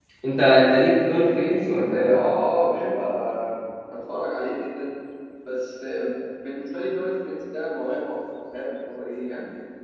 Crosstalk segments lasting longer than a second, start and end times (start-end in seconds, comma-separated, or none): none